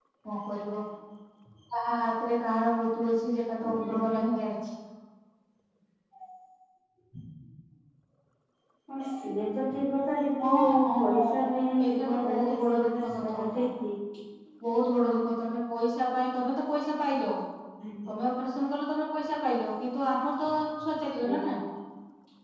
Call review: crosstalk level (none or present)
present